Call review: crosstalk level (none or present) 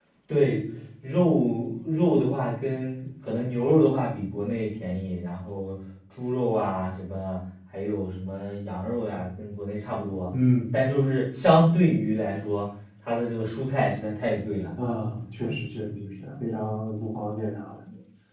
none